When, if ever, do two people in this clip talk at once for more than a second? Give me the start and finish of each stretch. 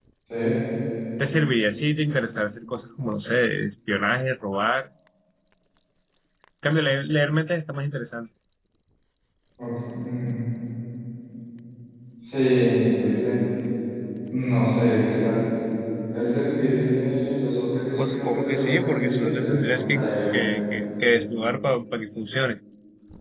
18.0-20.4

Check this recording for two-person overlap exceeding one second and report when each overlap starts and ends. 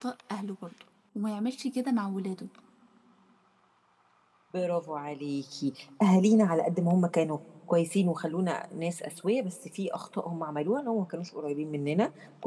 none

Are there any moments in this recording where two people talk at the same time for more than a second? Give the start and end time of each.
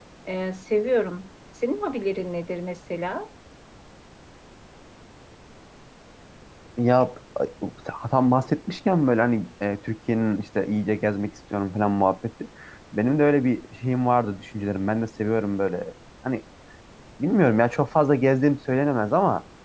none

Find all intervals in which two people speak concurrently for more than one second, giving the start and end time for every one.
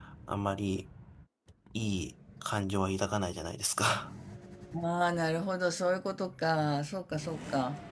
none

